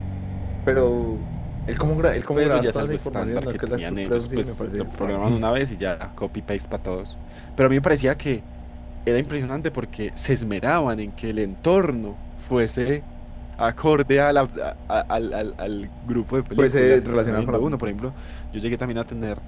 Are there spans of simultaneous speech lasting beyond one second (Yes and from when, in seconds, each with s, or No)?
Yes, from 1.9 s